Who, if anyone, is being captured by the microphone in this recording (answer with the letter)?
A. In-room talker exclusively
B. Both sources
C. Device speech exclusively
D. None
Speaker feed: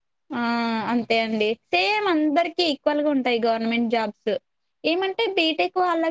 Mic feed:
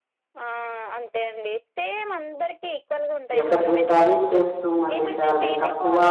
B